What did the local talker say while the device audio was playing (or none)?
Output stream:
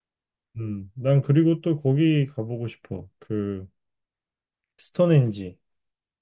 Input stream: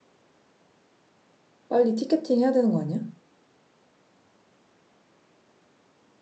빨리 티켓팅 해야 되는 거 아니야?